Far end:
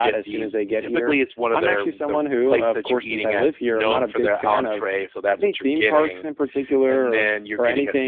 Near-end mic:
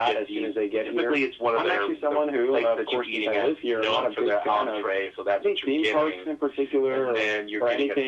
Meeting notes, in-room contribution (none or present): none